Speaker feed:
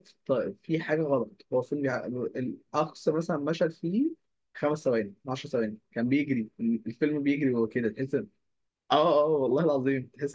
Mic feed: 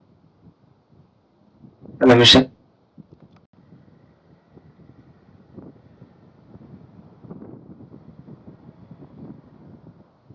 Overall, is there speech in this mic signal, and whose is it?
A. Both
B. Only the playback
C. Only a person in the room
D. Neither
C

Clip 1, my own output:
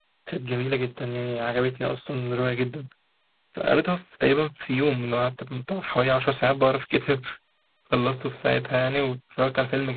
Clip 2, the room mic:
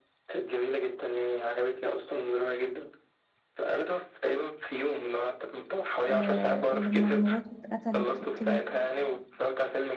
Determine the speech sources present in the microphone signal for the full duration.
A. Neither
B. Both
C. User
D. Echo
B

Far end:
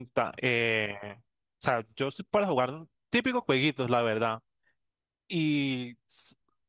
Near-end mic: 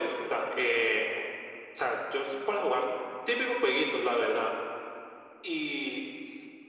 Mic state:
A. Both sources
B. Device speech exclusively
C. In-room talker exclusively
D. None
B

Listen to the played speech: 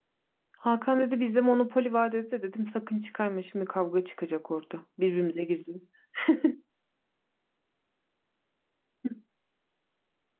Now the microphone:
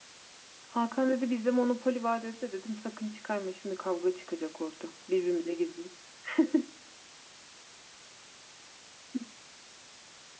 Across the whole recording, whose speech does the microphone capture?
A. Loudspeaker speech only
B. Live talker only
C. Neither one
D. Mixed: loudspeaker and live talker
A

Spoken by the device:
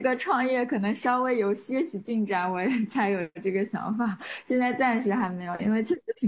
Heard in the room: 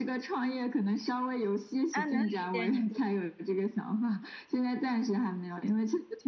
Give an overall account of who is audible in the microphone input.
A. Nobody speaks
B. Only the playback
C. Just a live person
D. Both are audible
D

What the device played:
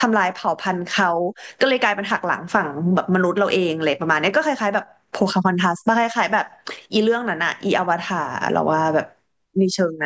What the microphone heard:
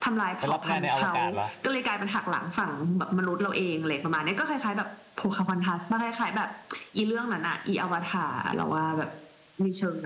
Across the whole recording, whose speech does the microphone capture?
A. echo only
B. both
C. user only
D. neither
B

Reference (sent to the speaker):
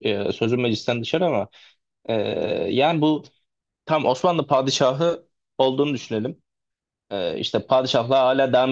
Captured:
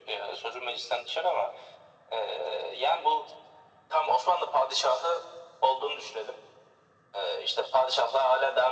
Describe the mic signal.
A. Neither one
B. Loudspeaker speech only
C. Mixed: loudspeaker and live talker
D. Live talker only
B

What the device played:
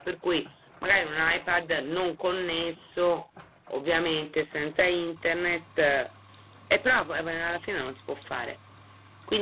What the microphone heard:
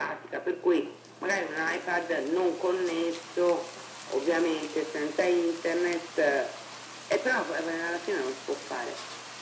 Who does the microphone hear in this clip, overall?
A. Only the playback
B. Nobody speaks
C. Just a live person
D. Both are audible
A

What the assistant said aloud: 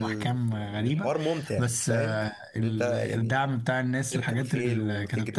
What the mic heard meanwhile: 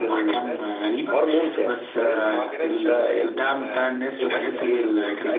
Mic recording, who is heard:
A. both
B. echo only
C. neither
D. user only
A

